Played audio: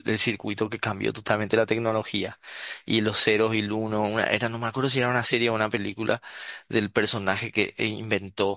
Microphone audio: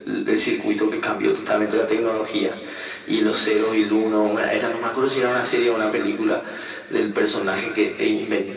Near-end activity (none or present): none